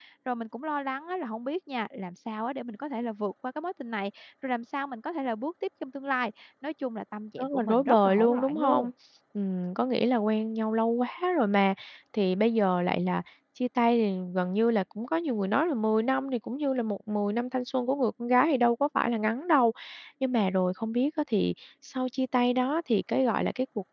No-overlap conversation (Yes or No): No